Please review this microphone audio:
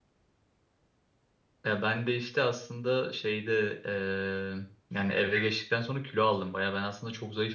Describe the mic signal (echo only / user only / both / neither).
user only